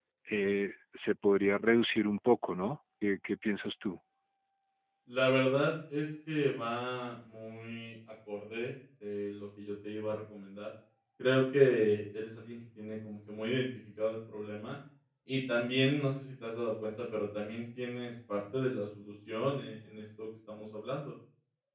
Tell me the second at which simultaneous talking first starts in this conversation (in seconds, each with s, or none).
none